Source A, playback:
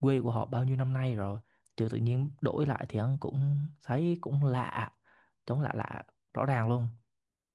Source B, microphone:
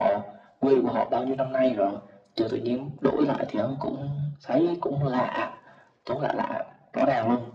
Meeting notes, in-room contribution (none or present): none